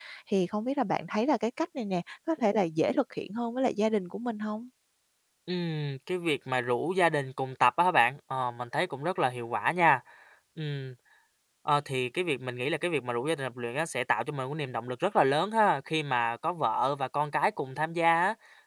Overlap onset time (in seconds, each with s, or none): none